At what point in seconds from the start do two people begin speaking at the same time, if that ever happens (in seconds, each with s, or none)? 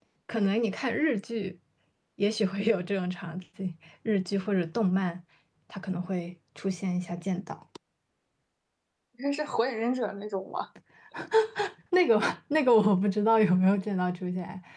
none